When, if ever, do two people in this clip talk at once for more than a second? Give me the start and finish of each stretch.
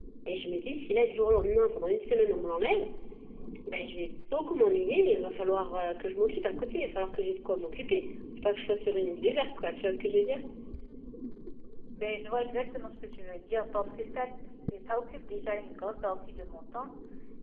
none

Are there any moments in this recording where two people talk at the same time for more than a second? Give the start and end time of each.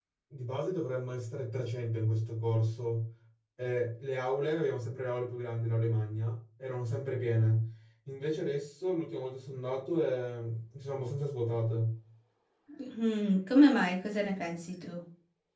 none

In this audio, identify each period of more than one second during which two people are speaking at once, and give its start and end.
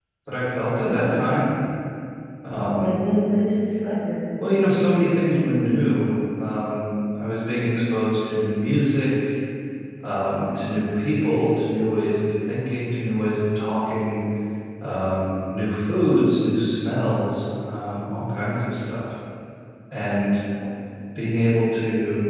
none

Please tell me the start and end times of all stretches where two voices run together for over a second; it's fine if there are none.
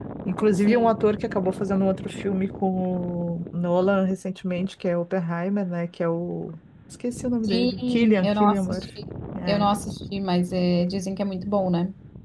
7.5-8.8

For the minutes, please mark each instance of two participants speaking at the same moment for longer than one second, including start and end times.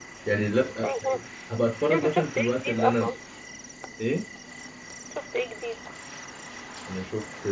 1.9-3.1

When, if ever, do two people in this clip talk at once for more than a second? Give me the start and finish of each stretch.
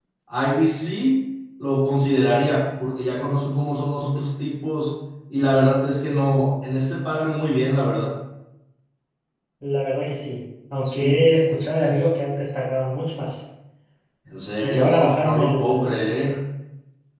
14.6-16.1

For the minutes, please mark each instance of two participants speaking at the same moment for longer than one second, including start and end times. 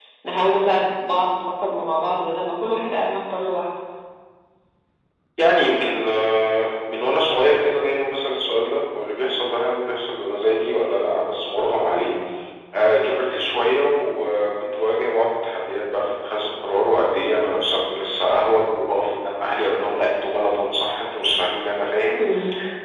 none

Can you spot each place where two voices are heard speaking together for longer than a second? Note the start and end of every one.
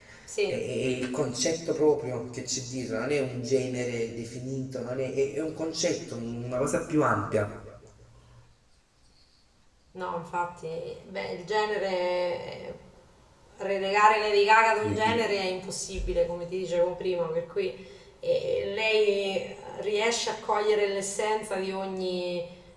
none

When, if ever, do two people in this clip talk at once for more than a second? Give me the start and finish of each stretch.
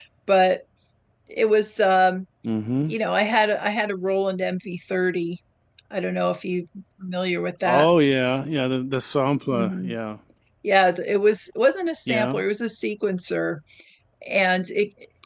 none

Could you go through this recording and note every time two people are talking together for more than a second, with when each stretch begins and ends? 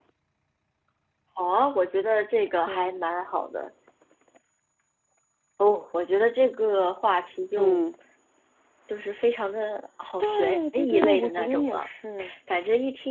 10.2-11.9

